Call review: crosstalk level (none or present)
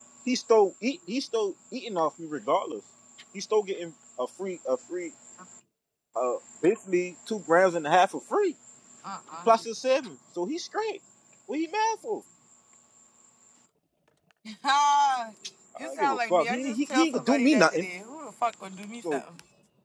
present